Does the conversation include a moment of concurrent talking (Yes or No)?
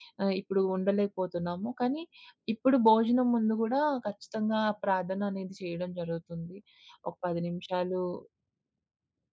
No